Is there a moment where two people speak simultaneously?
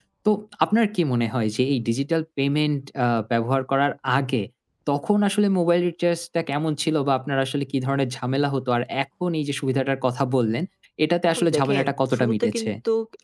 Yes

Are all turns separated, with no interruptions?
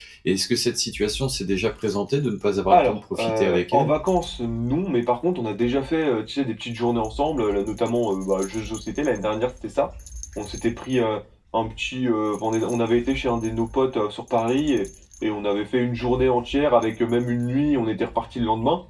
No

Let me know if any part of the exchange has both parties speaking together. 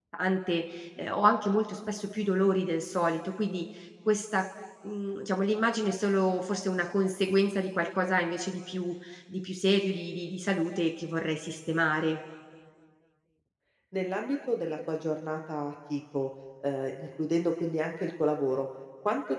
No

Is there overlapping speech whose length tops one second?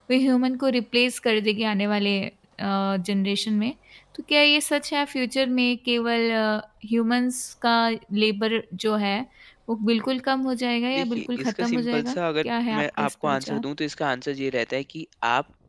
Yes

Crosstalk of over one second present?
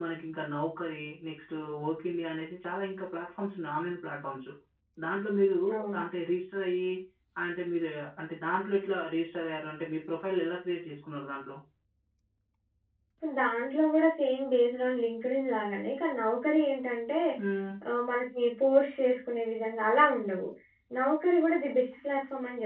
No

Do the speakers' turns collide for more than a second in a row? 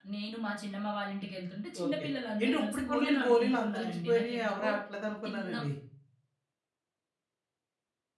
Yes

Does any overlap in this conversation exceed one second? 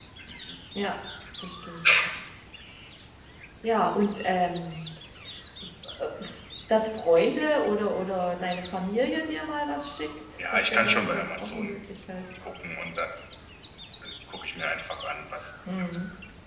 Yes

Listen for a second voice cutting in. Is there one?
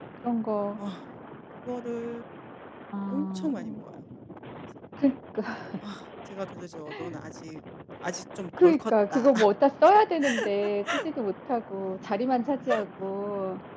Yes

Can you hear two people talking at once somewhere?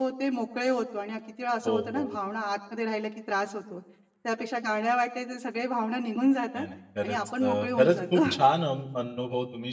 Yes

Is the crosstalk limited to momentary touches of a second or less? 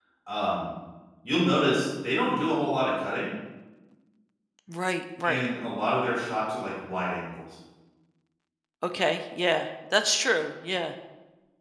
Yes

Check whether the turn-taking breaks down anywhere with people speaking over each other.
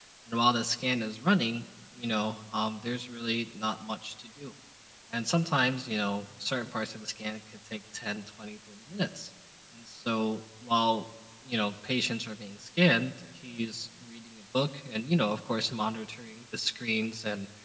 No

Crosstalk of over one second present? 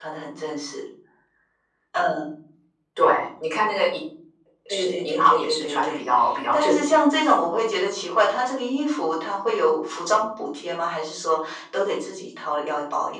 Yes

